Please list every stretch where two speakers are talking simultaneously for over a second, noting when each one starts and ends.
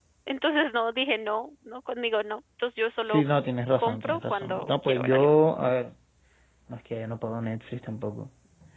3.8-5.3

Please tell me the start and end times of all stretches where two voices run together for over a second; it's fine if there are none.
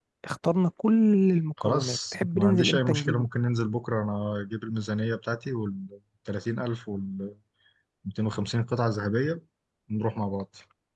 1.6-3.2

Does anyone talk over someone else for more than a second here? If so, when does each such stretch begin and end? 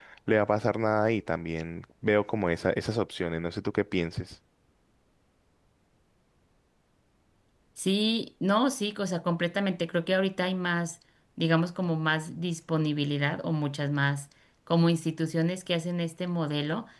none

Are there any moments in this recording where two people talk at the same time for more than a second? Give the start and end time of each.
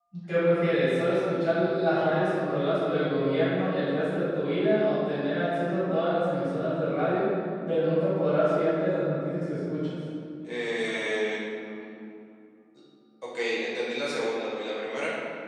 none

